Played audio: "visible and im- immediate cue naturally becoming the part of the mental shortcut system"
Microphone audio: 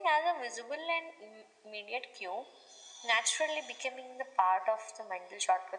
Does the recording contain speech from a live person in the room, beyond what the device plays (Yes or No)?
No